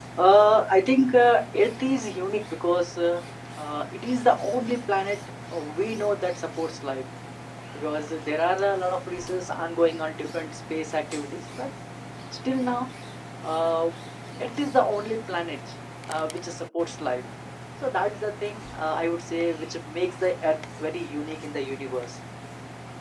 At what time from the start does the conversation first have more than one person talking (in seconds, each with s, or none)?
none